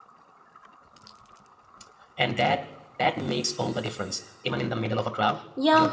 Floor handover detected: Yes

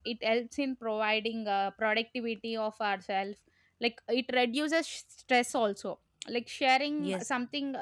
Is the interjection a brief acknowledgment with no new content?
Yes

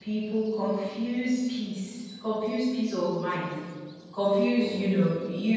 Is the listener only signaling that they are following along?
Yes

